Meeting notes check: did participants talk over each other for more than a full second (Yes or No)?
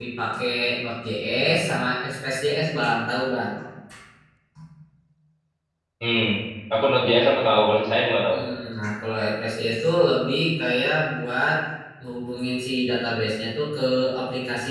No